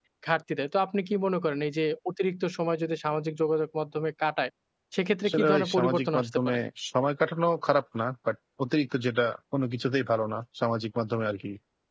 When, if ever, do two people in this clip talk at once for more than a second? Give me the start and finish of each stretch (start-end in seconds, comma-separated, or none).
5.2-6.6